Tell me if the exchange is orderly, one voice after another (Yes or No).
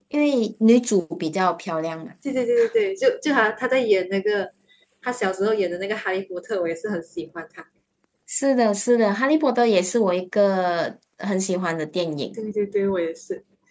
Yes